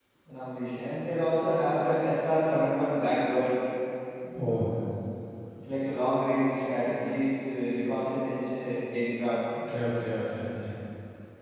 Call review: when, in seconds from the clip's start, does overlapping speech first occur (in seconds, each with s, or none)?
none